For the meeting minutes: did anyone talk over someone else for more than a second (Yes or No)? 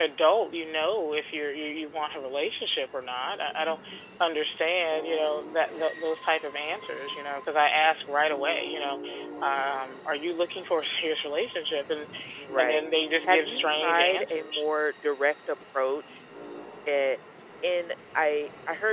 Yes